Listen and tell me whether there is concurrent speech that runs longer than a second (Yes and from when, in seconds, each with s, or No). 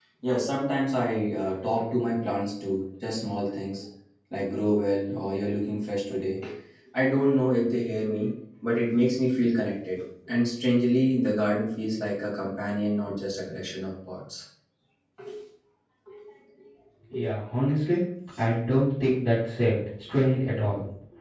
No